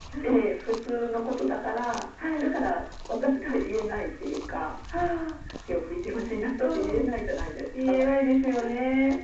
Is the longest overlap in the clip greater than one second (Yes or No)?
No